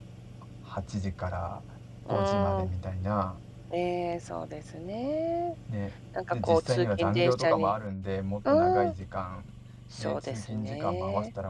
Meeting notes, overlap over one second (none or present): present